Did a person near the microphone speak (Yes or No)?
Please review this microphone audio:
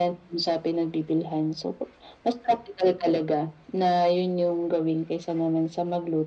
No